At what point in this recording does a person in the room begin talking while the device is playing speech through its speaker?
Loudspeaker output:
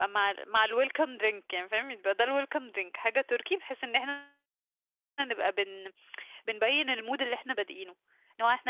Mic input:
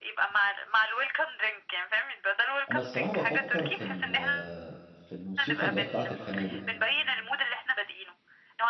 2.7 s

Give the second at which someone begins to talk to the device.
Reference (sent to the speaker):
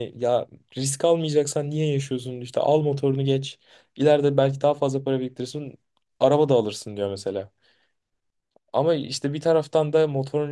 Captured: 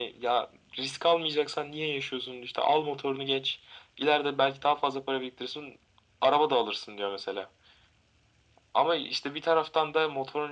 none

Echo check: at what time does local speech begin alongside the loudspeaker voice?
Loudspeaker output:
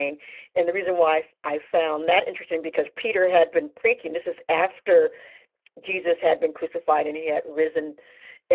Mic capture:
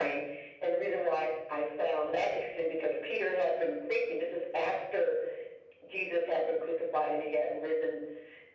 none

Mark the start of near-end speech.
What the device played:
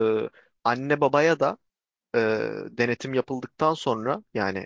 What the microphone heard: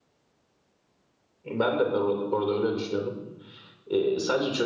1.4 s

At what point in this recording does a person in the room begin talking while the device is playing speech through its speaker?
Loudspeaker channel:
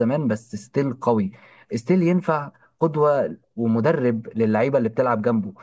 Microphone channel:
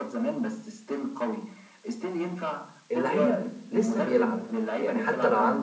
2.9 s

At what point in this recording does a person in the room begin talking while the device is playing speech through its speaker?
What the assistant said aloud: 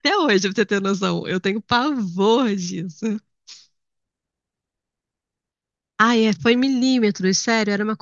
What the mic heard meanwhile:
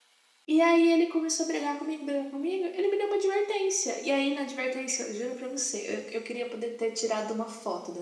0.5 s

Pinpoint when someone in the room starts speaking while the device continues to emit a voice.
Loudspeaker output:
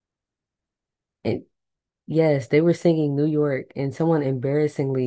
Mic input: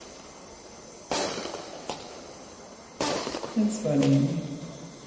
3.6 s

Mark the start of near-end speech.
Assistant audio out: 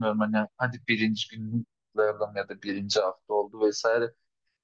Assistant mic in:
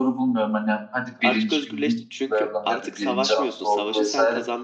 1.2 s

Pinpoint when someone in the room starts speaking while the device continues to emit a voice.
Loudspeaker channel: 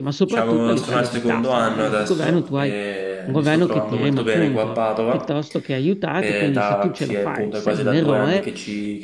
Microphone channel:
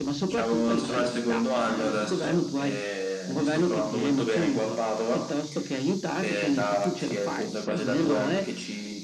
none

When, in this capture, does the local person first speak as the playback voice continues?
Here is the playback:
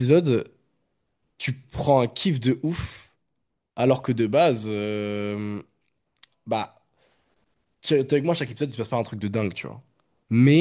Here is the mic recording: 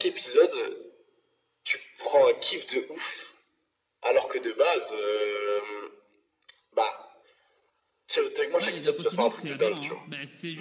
8.6 s

